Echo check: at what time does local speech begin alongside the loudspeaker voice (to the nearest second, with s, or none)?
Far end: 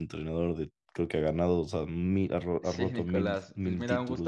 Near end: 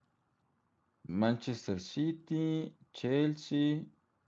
1 s